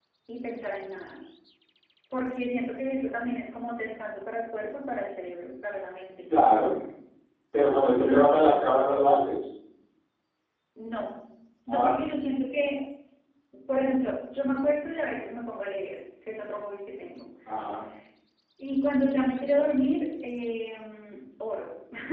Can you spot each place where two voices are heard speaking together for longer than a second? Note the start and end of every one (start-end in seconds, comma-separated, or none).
none